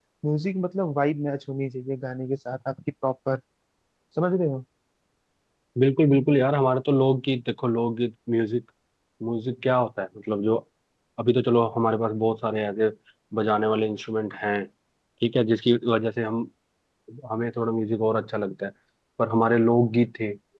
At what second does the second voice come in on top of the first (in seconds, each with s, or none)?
none